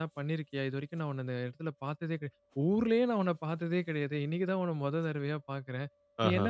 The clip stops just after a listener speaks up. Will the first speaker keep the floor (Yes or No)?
Yes